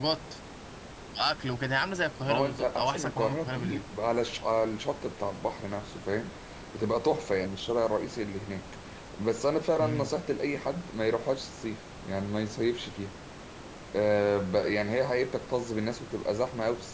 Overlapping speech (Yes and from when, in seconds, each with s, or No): Yes, from 2.3 s